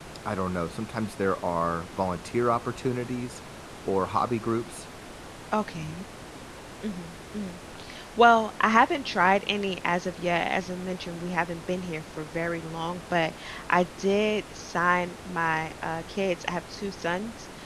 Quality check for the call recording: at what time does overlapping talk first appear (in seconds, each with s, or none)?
none